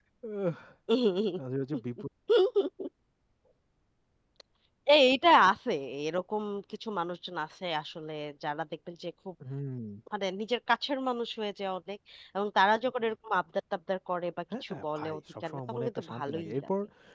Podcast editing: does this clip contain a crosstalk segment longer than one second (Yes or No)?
Yes